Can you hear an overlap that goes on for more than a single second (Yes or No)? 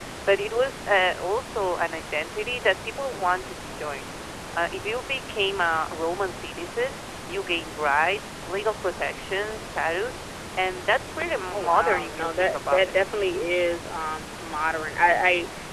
Yes